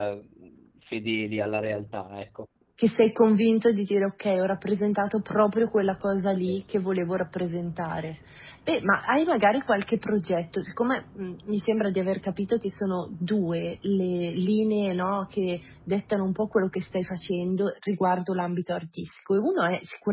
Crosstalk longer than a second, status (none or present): none